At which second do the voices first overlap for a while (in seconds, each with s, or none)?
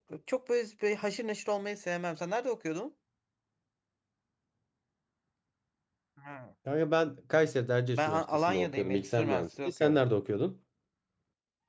8.0 s